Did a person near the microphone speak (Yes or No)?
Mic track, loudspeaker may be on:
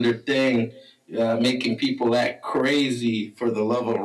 No